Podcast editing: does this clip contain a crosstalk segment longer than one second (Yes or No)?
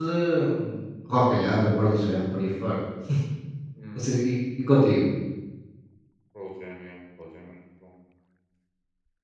No